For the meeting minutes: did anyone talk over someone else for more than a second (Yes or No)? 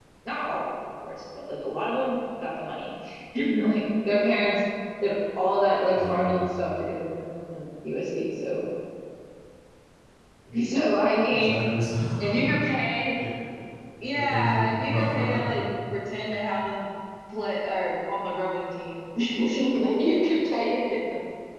Yes